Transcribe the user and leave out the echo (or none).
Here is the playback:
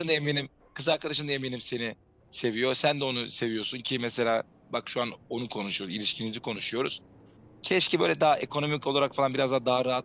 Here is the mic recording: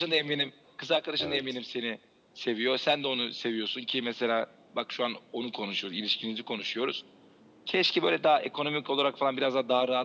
Evet.